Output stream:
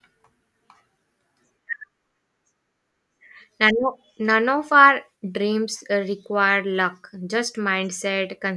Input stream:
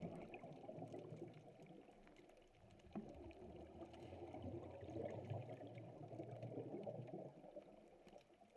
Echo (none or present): none